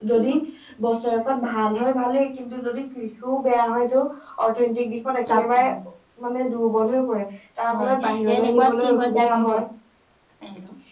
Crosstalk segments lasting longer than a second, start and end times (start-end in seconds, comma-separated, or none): 7.8-9.6